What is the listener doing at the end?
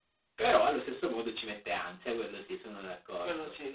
taking over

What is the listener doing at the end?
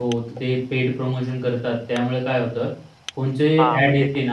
taking over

